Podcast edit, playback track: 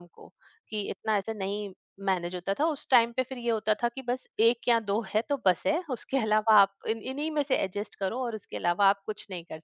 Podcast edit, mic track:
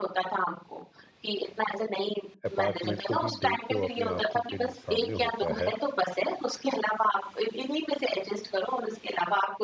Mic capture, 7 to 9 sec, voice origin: echo only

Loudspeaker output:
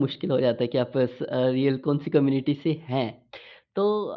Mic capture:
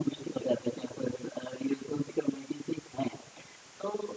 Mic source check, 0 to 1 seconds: echo only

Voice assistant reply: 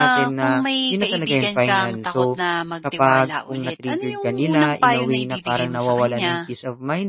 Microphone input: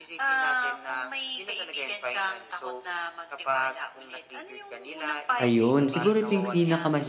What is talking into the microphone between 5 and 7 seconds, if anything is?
both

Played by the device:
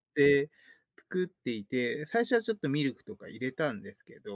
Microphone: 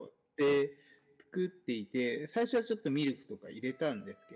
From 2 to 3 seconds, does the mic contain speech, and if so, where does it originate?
echo only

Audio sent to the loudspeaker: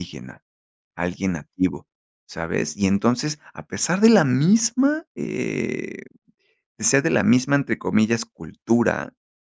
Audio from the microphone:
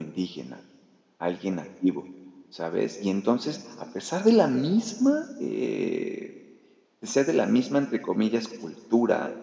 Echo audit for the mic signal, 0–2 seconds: echo only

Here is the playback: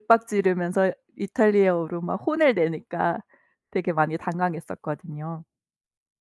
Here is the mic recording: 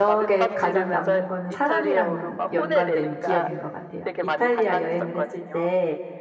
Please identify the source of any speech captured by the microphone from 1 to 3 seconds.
both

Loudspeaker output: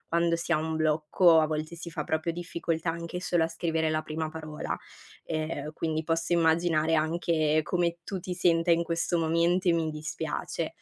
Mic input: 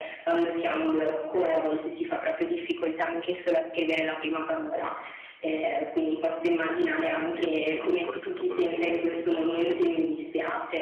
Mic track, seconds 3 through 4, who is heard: echo only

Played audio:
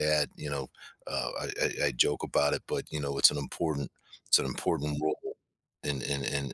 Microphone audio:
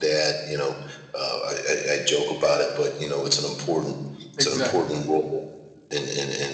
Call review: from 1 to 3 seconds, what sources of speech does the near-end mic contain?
echo only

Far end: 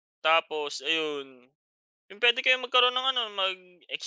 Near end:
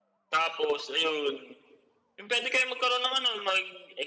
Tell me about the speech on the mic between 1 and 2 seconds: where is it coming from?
echo only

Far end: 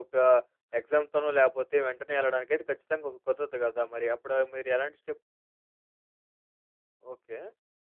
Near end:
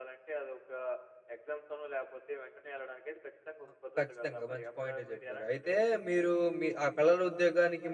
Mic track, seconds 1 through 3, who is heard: echo only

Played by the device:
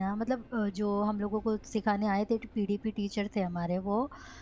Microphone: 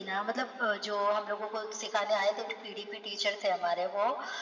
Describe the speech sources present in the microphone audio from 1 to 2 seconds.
echo only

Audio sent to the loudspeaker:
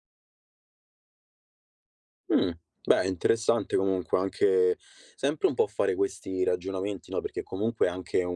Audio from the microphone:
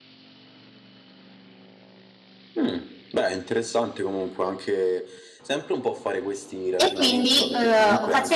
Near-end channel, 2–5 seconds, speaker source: echo only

